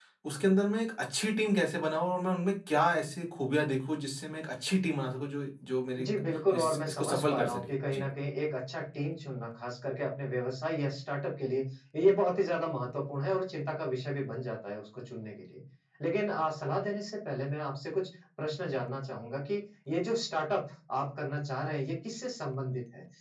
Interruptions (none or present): present